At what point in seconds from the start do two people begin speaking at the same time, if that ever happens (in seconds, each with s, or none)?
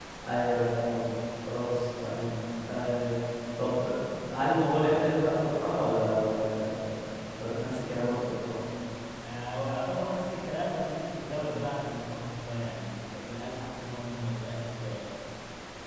none